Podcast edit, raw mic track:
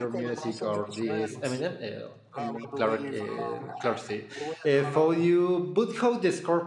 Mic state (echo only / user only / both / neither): both